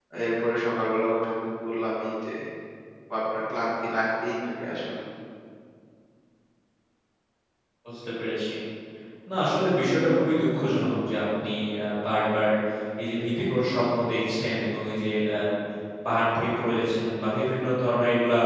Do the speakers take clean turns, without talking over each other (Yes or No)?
Yes